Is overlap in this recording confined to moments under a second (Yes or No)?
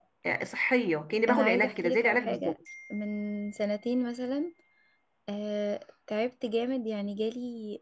No